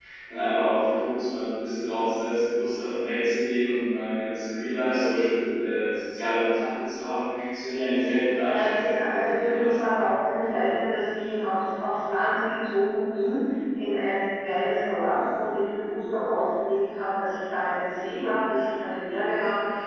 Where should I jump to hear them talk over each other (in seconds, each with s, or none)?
8.4 s